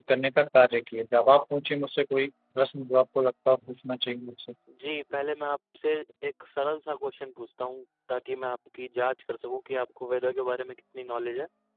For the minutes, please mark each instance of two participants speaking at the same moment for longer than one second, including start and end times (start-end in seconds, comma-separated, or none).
none